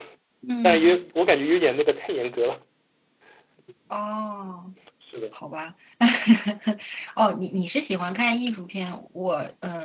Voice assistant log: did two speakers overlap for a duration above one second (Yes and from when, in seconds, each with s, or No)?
No